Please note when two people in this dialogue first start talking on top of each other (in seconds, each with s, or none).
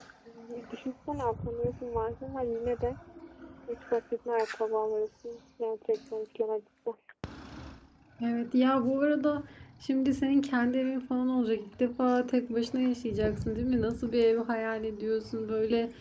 none